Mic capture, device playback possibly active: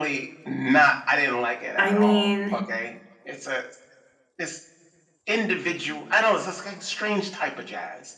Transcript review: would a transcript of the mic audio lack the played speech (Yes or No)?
No